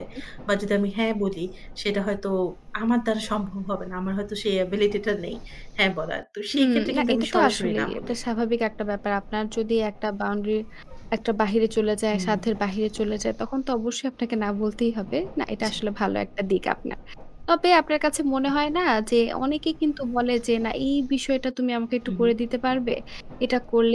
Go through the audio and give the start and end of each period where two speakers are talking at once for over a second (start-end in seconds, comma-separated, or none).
6.5-8.2